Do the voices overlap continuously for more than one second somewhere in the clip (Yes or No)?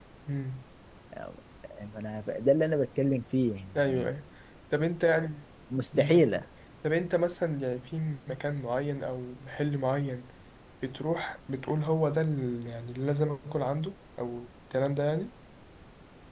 No